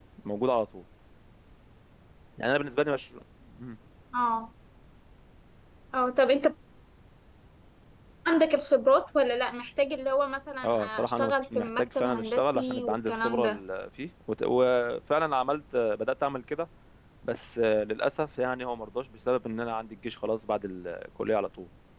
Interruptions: present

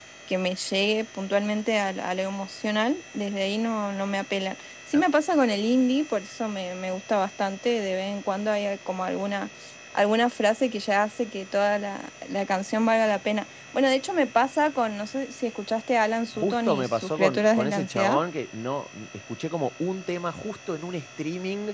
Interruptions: present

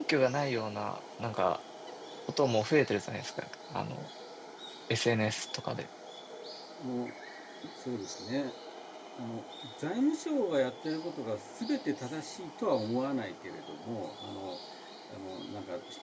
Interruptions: none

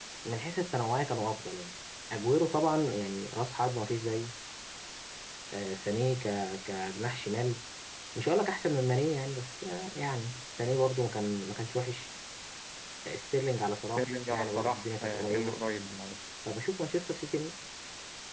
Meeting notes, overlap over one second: present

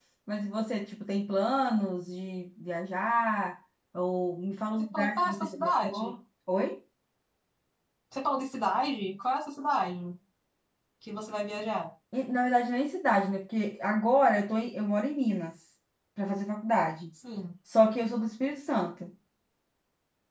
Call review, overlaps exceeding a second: present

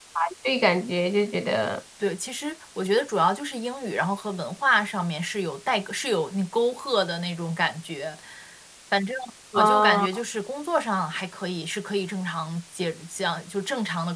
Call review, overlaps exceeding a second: none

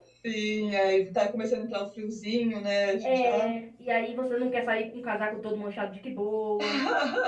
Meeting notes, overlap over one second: none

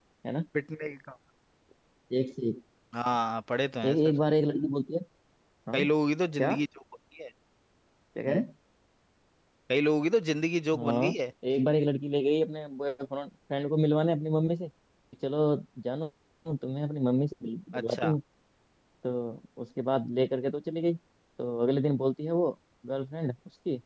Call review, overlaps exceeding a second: none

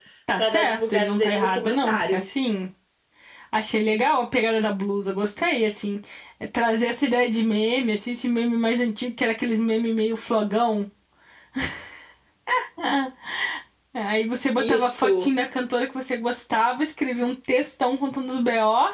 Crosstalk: present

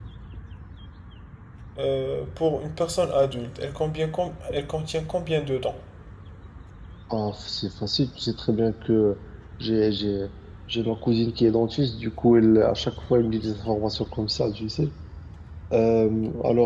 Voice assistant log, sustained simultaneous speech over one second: none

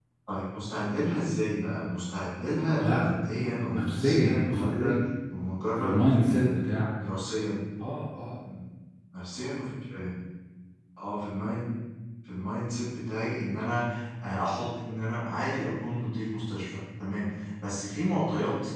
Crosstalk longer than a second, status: present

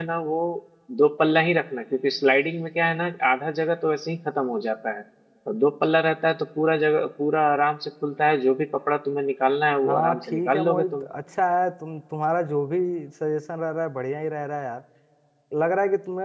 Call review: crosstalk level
present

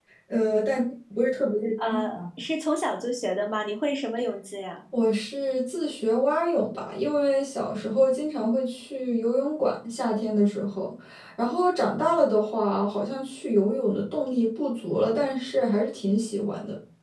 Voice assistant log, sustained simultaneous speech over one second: none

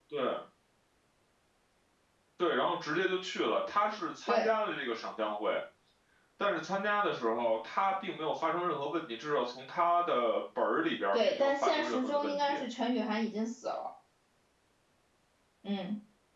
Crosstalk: present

